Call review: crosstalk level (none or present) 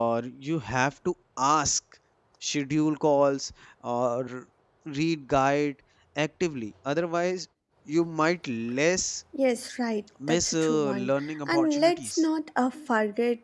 present